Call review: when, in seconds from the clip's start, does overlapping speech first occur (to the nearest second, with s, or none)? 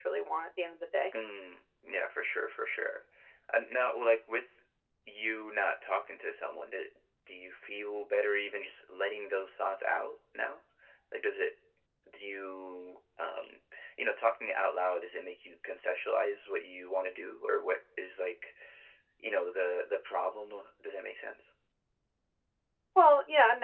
none